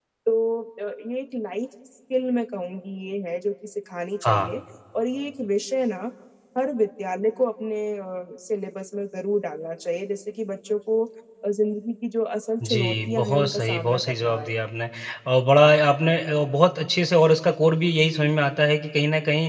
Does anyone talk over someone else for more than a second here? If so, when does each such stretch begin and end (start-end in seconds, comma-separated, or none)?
12.6-14.5